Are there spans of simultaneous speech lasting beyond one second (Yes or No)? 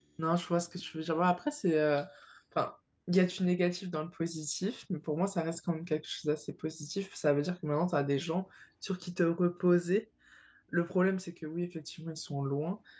No